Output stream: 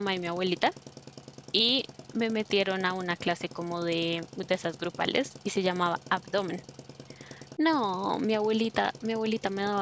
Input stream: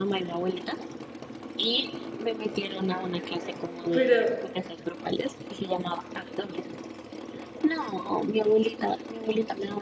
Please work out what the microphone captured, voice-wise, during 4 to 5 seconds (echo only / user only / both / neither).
both